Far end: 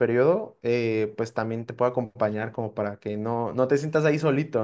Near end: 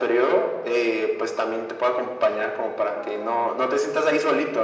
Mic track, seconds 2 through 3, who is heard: echo only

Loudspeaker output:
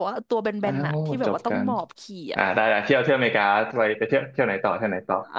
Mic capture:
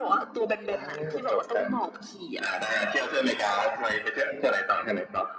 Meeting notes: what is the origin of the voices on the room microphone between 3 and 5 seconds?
echo only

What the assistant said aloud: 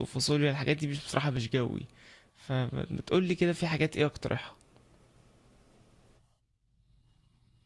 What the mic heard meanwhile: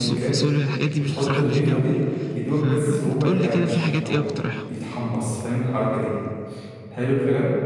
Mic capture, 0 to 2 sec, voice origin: both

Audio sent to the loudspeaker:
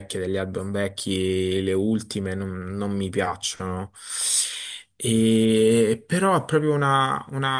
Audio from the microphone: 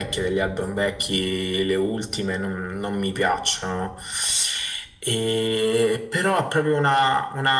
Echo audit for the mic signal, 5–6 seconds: echo only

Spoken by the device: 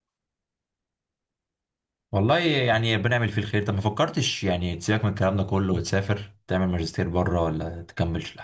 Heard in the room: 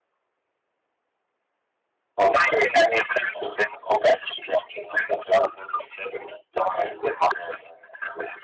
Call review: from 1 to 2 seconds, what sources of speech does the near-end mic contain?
neither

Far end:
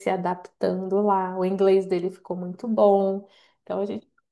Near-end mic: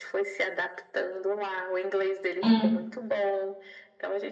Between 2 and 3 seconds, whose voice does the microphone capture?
both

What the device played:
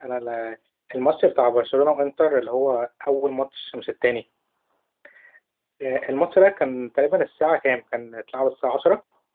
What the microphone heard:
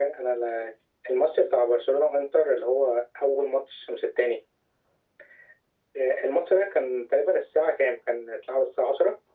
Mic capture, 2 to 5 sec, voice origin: echo only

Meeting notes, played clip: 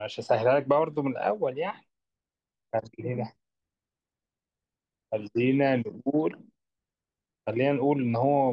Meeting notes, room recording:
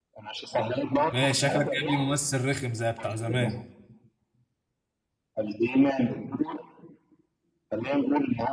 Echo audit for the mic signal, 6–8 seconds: echo only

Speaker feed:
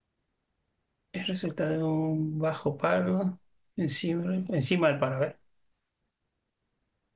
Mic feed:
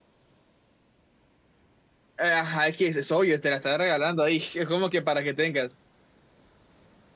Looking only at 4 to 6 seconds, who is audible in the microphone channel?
user only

